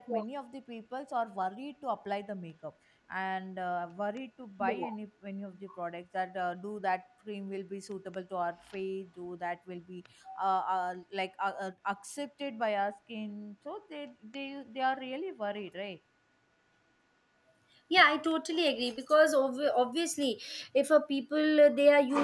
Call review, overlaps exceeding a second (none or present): none